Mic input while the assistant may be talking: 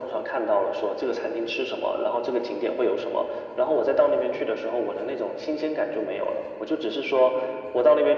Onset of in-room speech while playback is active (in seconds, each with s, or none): none